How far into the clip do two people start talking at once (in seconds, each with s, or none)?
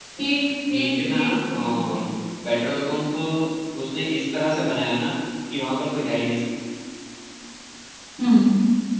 0.7 s